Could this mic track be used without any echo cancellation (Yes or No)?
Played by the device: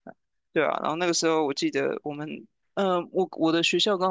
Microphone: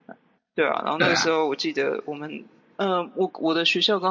No